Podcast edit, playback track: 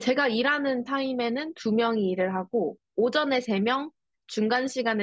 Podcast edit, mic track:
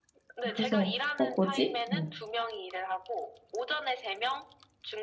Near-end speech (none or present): present